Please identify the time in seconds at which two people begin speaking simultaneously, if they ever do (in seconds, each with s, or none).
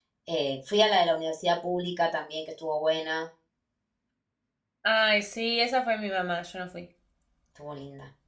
none